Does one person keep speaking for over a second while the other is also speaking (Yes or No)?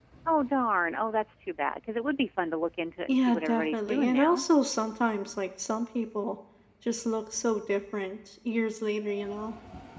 Yes